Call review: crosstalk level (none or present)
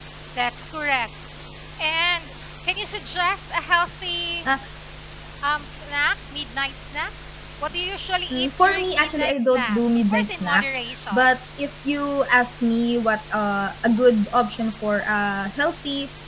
present